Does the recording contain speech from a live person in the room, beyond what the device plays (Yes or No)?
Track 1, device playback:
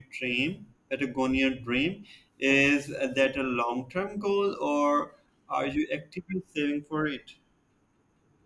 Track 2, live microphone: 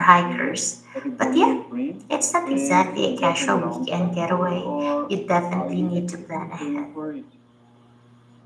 Yes